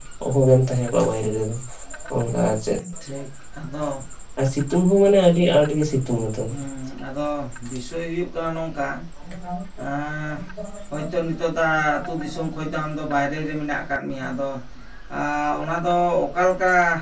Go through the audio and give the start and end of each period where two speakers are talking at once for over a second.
none

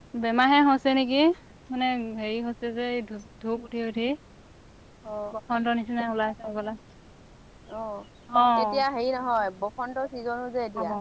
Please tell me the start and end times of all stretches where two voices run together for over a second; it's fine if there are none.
none

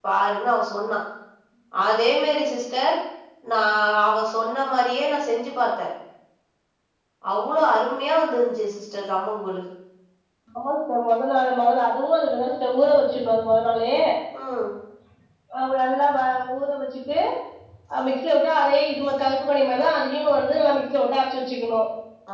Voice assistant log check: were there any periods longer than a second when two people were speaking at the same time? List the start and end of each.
none

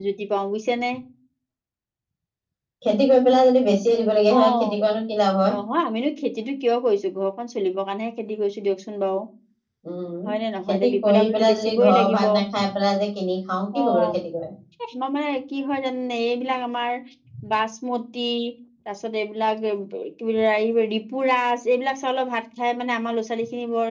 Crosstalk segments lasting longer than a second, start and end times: 10.7-12.2

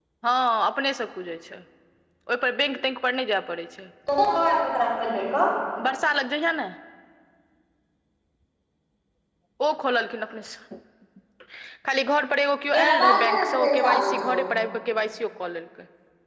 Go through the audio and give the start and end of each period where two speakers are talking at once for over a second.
12.7-14.4

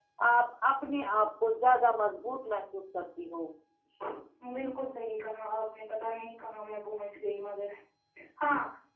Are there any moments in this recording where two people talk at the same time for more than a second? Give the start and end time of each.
none

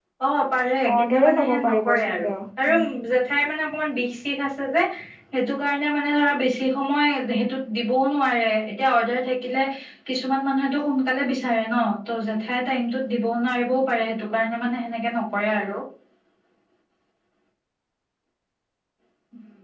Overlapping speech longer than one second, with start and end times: 0.9-2.3

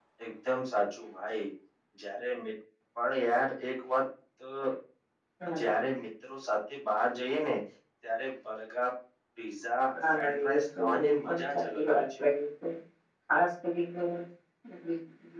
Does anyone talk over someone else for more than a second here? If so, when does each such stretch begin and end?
10.1-12.2

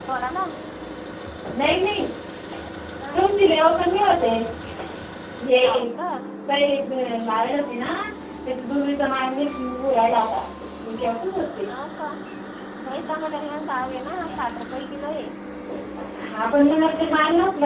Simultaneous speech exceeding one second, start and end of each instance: none

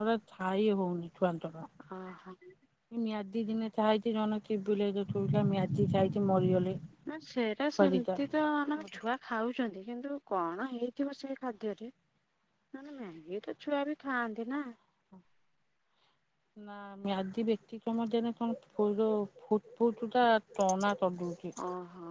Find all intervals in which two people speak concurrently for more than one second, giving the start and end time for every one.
none

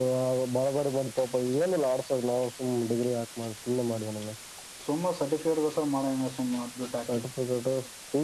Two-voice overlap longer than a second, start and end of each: none

